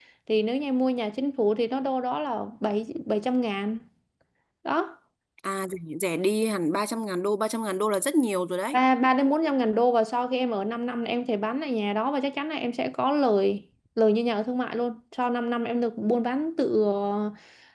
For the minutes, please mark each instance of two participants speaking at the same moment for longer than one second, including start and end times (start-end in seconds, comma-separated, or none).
none